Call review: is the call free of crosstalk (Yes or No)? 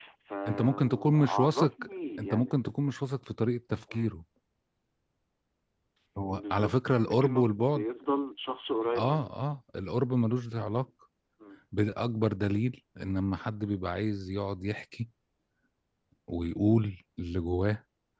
No